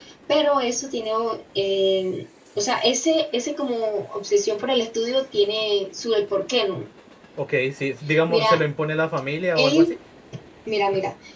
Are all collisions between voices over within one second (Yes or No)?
Yes